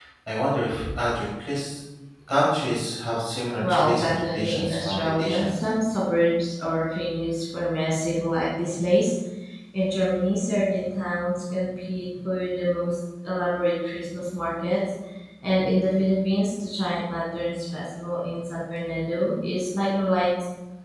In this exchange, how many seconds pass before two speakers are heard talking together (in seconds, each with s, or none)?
3.6 s